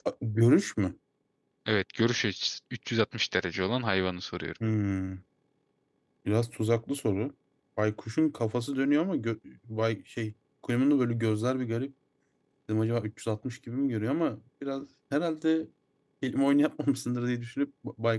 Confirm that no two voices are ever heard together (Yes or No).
Yes